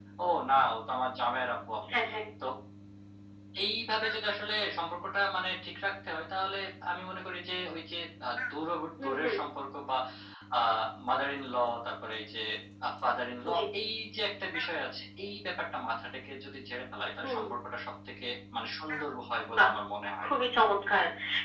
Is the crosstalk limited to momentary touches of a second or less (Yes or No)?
Yes